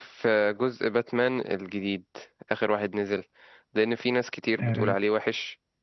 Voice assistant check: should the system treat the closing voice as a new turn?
No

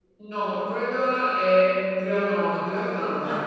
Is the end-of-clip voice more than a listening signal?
No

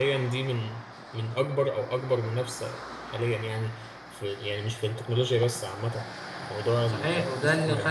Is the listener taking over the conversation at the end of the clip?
Yes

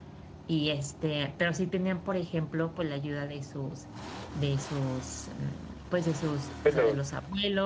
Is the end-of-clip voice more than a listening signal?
No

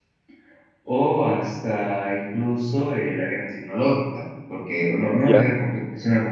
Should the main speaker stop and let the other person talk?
No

